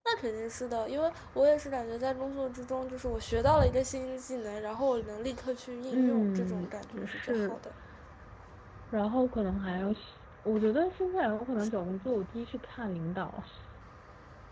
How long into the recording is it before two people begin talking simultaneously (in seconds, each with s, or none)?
5.9 s